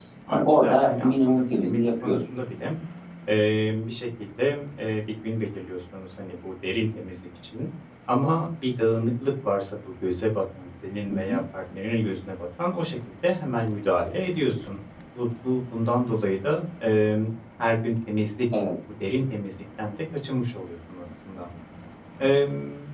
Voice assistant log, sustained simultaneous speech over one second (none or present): present